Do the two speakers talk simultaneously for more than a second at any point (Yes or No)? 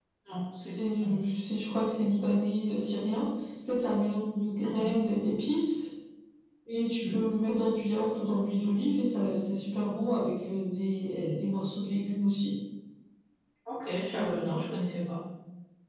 No